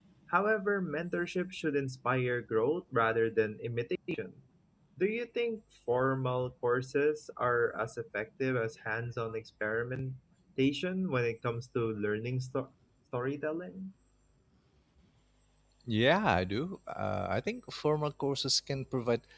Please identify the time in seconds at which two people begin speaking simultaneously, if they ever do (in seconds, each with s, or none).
none